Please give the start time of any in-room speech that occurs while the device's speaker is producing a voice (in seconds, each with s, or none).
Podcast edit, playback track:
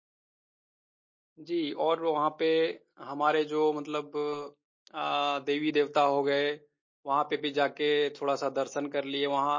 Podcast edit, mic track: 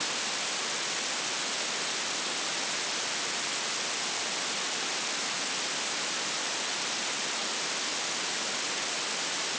none